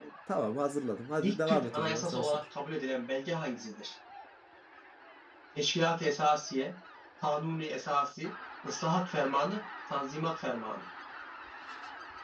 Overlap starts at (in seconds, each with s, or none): 1.2 s